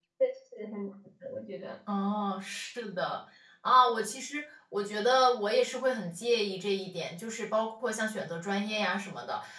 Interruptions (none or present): none